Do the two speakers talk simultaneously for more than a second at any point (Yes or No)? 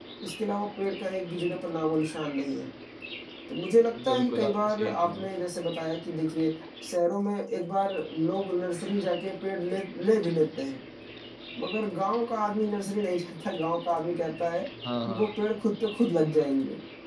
Yes